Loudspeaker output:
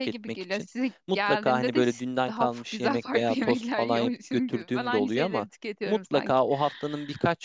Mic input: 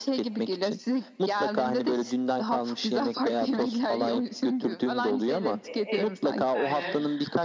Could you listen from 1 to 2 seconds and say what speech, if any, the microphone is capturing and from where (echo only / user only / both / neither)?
echo only